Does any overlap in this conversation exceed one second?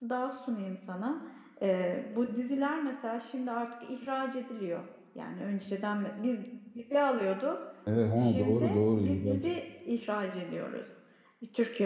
Yes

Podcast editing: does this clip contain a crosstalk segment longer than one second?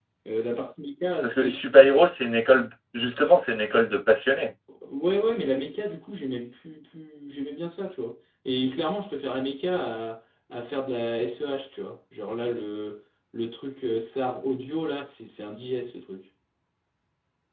No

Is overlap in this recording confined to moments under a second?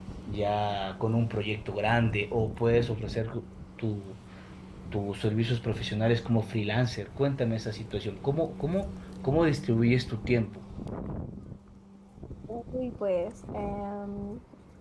Yes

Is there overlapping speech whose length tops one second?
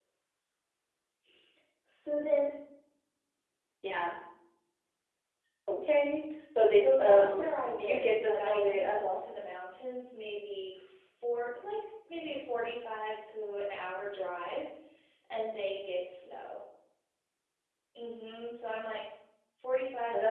Yes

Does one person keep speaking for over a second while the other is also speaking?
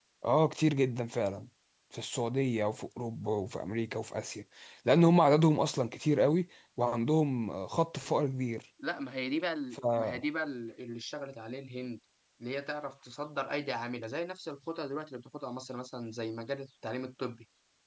No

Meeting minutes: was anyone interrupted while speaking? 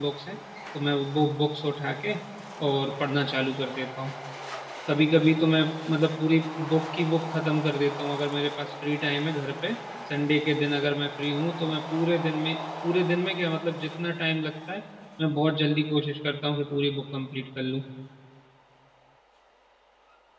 No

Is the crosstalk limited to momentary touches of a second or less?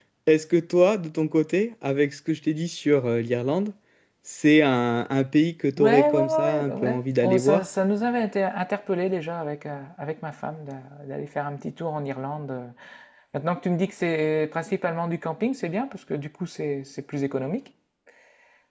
No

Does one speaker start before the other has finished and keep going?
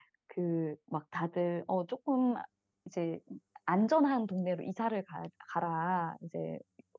No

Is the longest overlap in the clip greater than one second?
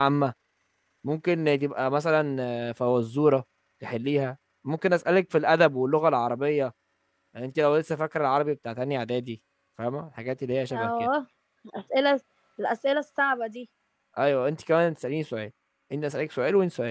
No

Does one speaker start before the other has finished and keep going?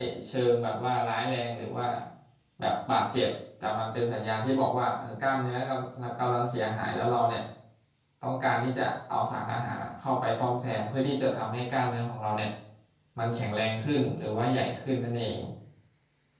No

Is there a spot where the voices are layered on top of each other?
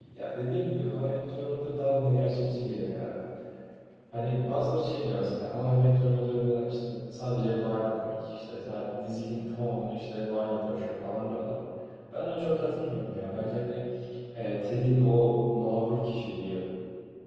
No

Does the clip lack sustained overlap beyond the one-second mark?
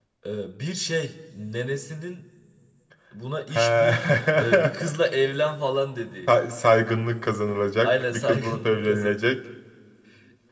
No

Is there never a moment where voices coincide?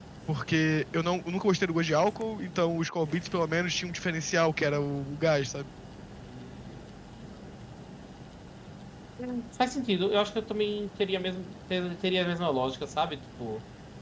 Yes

